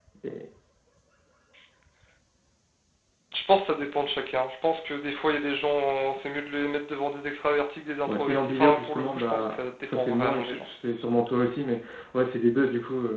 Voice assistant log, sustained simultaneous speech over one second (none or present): present